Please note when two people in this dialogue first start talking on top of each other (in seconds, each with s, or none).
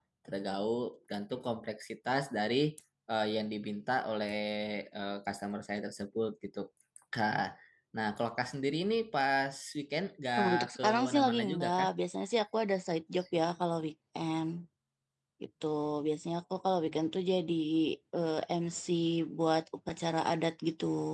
10.4 s